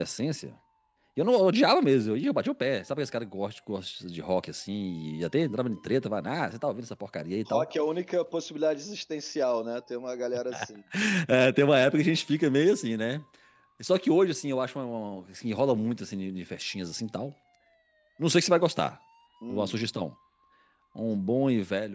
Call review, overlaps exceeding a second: none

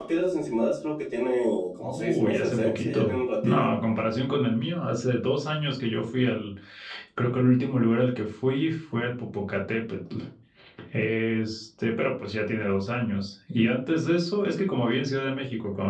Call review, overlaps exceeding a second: present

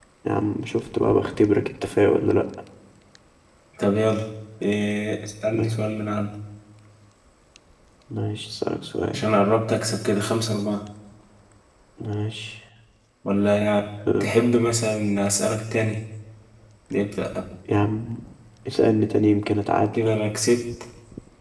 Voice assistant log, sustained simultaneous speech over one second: none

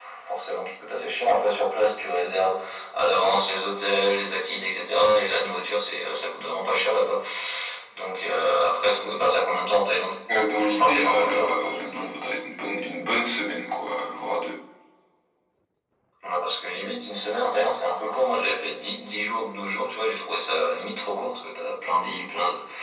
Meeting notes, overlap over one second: present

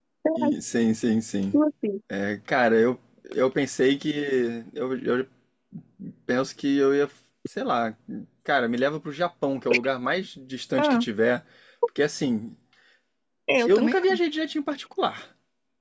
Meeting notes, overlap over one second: none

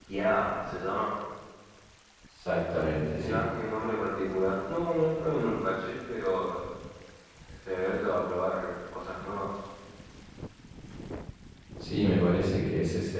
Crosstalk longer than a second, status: none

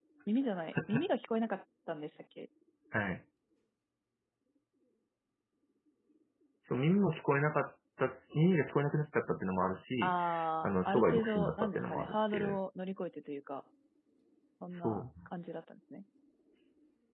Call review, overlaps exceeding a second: present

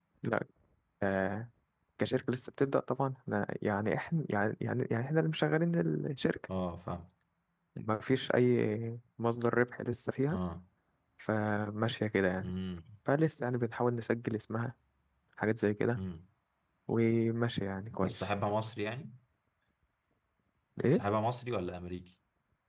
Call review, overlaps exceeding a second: none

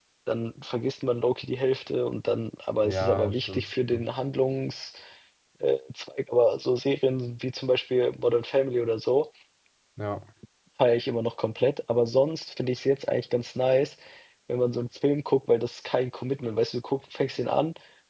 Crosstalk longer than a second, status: present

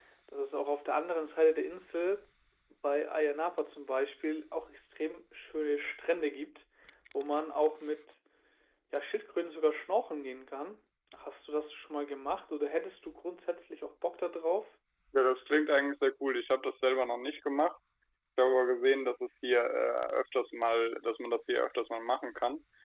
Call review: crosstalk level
none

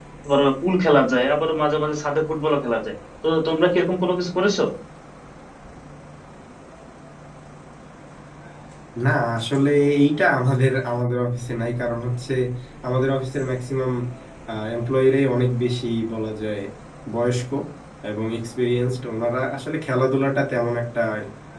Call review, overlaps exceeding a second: none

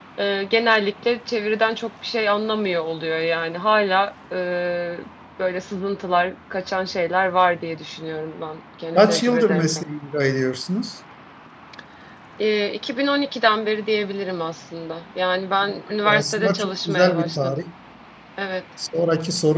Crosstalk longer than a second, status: present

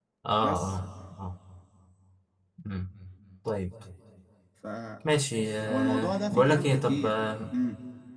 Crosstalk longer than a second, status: present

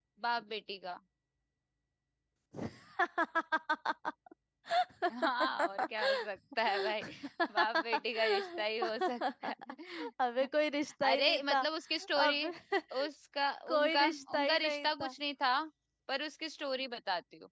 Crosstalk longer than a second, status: present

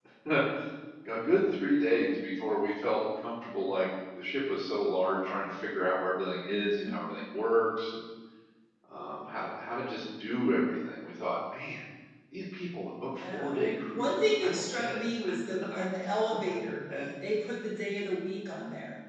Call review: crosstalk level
present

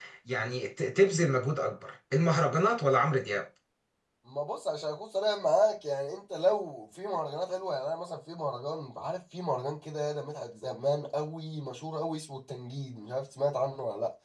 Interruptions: none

